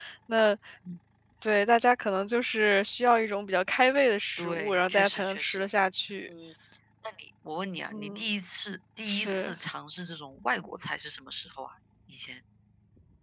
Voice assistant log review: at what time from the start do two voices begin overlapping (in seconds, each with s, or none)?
4.4 s